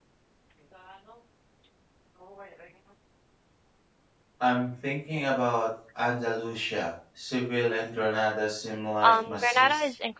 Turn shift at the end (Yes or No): Yes